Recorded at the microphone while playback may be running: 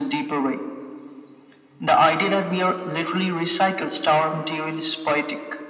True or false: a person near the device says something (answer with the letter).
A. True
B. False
B